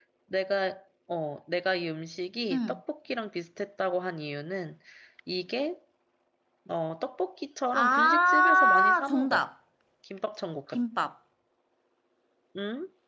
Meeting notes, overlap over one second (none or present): present